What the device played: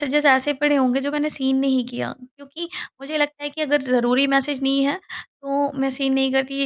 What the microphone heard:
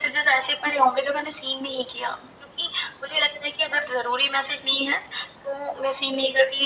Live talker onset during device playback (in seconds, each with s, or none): none